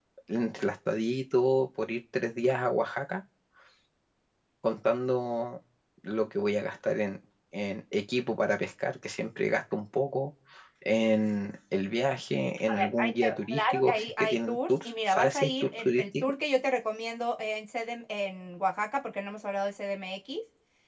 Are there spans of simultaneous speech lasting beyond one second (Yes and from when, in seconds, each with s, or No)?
Yes, from 12.7 s